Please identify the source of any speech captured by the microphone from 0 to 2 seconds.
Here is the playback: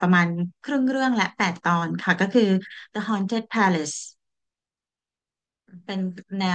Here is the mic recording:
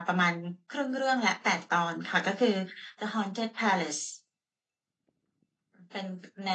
echo only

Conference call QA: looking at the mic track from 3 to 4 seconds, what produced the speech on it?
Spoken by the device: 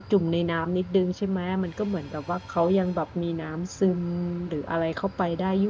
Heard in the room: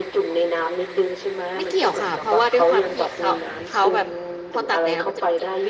both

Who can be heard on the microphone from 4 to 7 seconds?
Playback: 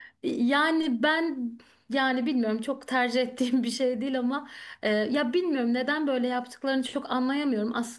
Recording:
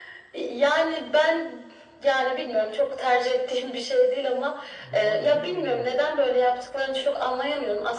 both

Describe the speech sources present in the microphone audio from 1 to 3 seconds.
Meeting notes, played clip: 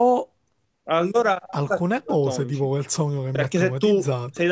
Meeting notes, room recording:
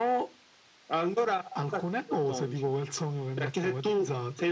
echo only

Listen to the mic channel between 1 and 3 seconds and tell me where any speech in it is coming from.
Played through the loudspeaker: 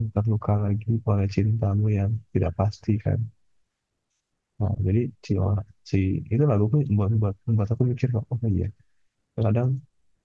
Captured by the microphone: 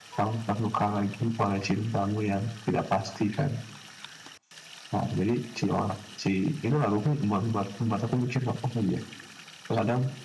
echo only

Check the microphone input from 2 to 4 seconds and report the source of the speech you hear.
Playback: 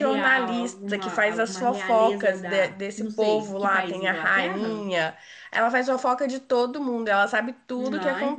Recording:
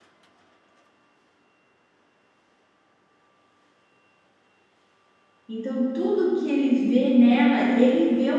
neither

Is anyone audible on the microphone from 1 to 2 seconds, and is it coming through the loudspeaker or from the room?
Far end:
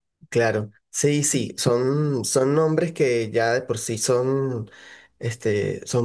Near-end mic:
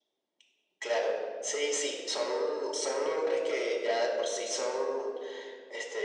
echo only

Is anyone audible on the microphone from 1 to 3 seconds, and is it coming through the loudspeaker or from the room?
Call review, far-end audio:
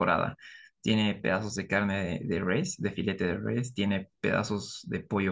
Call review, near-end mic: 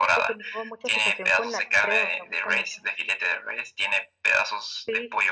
both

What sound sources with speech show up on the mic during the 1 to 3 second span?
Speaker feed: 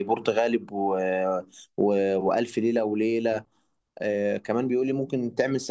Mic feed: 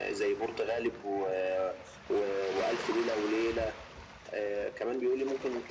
echo only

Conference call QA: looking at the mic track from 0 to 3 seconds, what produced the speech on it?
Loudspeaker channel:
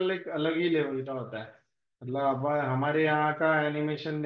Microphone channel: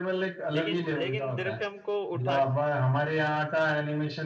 both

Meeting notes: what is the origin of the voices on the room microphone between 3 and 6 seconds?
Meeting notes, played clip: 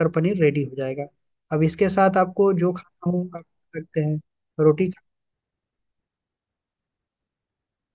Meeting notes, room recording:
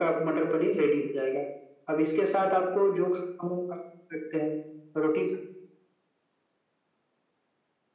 echo only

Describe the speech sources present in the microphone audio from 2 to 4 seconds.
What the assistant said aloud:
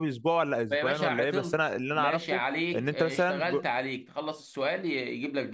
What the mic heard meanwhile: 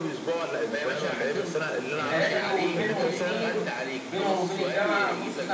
both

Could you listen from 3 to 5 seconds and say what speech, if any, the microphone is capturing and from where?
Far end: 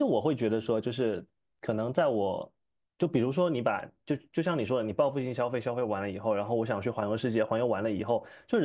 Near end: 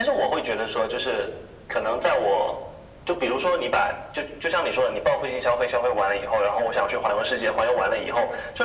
echo only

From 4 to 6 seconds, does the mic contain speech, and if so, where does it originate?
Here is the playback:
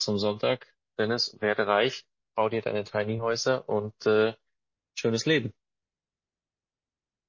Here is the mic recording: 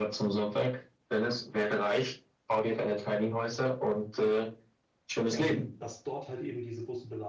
both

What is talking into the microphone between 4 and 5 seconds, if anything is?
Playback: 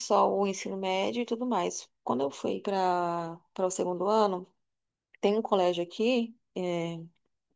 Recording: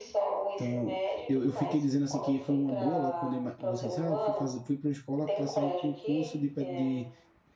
both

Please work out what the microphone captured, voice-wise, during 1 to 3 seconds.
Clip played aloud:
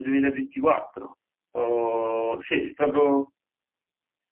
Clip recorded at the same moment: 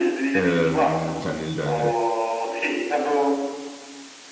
both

